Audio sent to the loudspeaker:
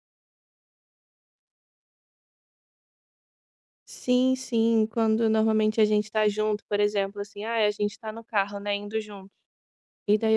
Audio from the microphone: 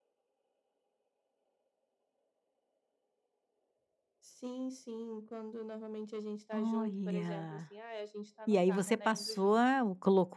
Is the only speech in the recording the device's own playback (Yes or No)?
No